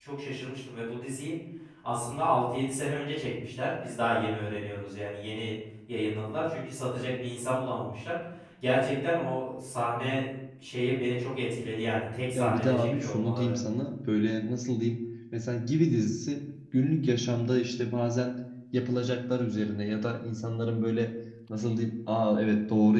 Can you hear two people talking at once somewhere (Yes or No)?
Yes